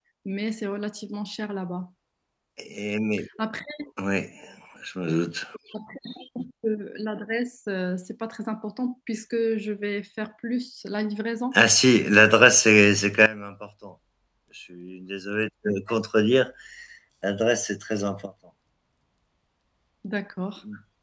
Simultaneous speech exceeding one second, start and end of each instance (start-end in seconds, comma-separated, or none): none